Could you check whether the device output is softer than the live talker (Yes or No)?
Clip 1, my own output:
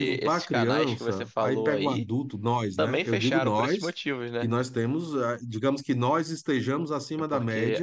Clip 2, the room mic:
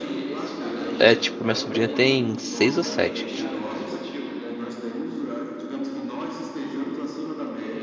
Yes